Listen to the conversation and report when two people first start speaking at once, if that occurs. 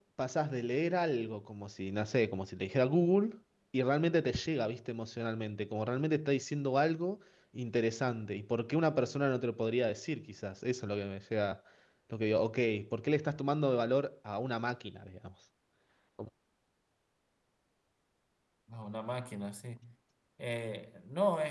none

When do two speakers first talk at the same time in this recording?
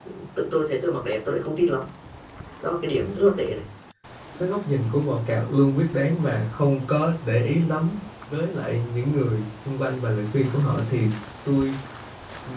none

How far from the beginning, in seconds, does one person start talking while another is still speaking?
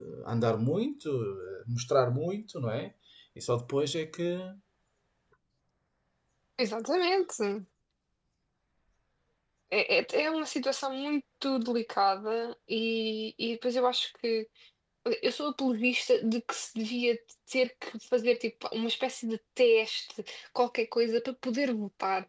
none

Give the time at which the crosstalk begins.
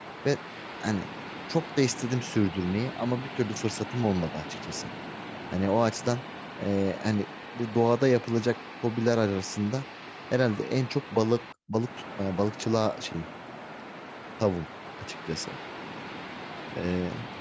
none

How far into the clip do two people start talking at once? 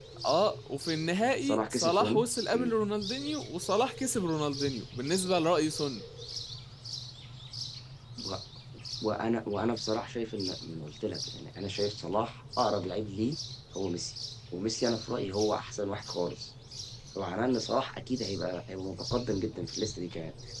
1.4 s

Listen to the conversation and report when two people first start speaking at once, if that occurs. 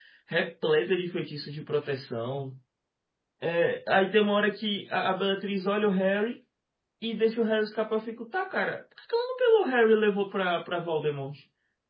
none

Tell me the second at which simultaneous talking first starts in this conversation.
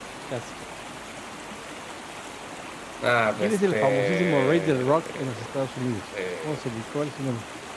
3.4 s

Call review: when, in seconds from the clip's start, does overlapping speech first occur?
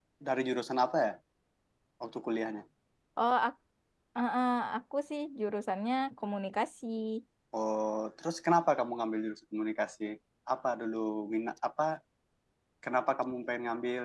none

